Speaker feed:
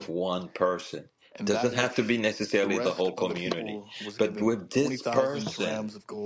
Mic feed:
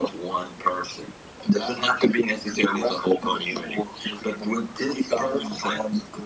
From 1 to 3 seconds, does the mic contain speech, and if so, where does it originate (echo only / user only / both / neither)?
echo only